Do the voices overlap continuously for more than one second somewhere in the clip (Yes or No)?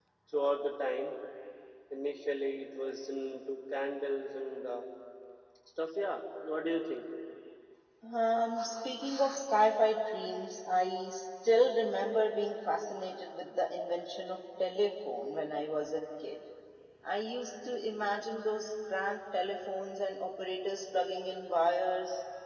No